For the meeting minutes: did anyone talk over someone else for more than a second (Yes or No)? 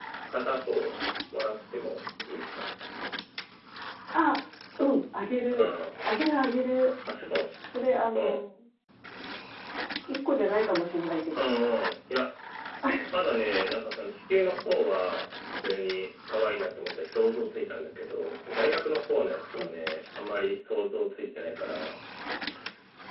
No